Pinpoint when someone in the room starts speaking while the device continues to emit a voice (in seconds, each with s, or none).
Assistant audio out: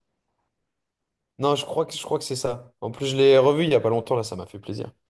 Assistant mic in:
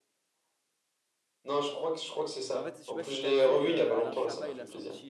2.5 s